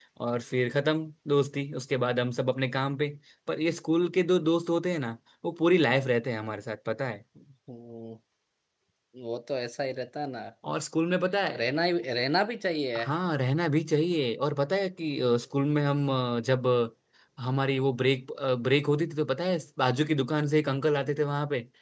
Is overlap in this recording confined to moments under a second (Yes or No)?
Yes